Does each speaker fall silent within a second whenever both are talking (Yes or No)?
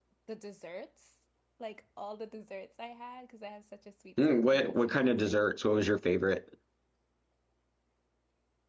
No